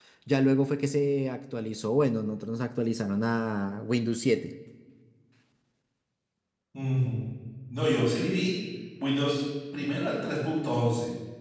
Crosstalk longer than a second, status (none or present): none